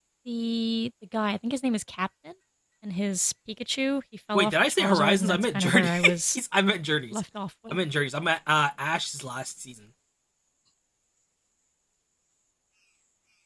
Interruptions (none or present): present